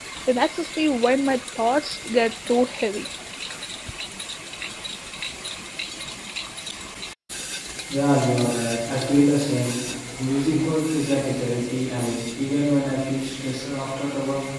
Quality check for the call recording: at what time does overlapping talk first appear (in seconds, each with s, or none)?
none